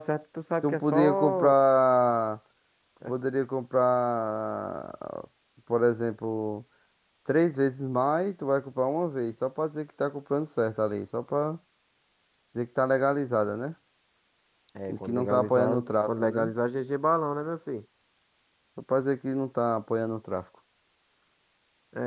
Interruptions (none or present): present